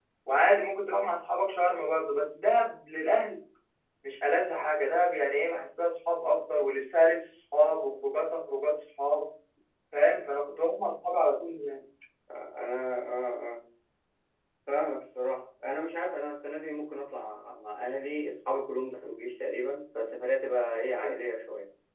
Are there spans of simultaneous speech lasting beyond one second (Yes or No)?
No